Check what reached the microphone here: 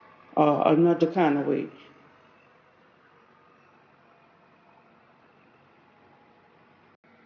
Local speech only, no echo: uh, another kind of way.

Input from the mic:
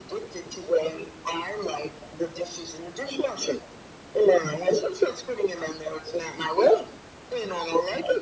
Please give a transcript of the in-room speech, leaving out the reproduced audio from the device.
none

